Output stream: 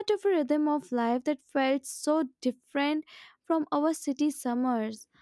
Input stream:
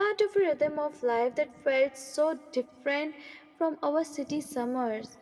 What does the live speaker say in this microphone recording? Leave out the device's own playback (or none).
none